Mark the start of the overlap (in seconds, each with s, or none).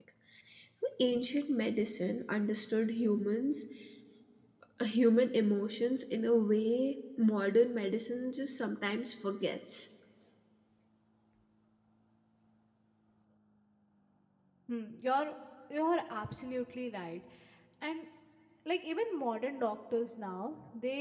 none